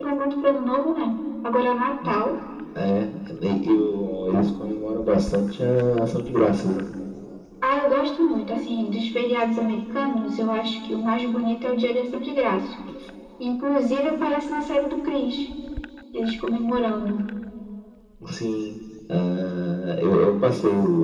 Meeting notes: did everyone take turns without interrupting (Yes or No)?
Yes